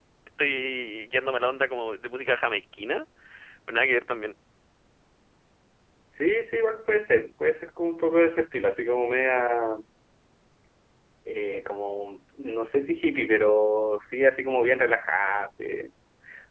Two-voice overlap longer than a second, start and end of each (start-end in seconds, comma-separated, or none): none